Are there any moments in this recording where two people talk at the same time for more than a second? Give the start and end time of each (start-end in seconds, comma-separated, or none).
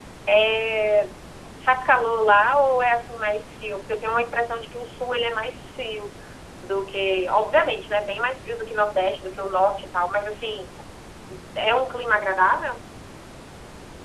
none